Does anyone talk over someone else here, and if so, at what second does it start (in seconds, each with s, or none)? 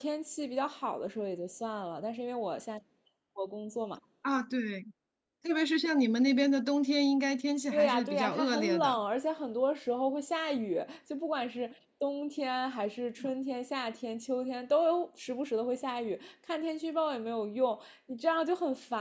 7.7 s